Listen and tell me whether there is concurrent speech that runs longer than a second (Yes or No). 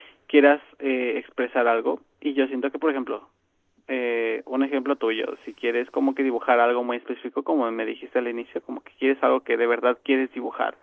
No